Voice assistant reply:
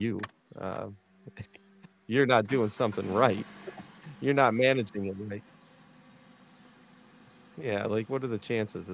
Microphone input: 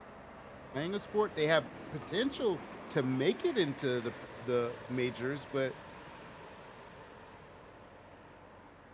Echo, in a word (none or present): none